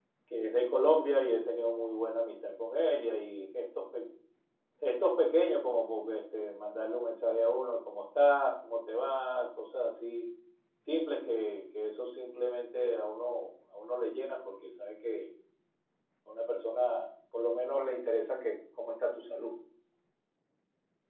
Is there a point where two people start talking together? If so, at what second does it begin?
none

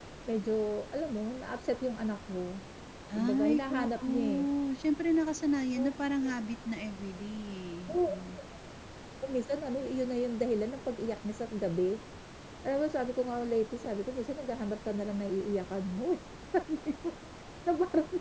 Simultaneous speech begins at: 3 s

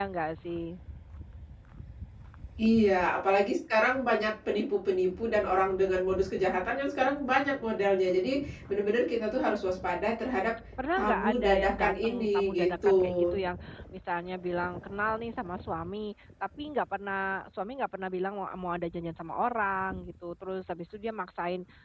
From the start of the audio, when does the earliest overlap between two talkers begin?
11 s

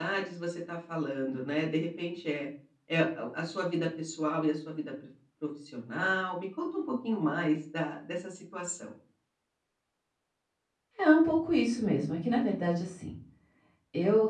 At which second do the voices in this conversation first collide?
none

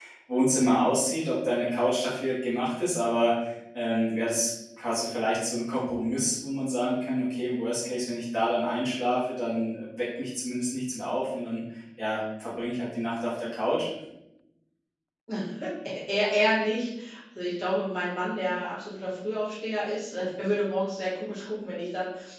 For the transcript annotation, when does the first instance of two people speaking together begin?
none

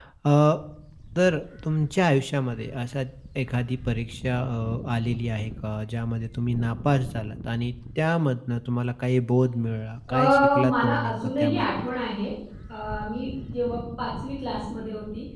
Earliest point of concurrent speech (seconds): 10 s

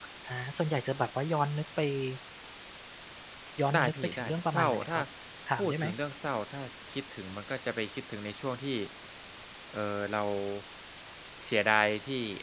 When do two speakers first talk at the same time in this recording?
4 s

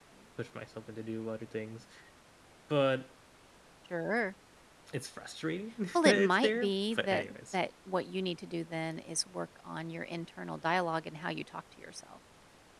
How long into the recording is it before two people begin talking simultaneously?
6 s

